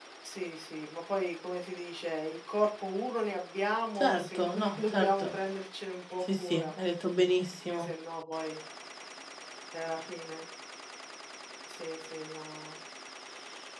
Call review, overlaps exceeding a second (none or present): present